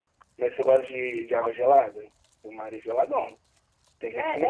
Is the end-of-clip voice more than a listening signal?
Yes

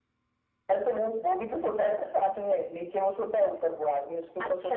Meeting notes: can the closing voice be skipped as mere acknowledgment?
No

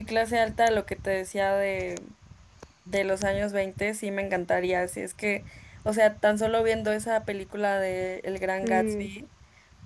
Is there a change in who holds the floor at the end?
No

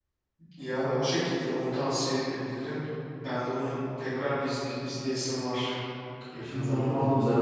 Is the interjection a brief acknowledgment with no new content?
No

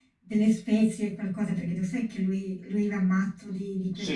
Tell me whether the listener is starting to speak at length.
Yes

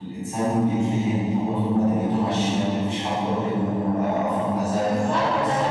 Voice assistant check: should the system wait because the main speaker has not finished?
No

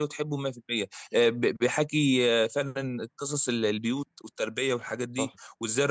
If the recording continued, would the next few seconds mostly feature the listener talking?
No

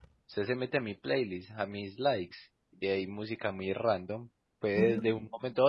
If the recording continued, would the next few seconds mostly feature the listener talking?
No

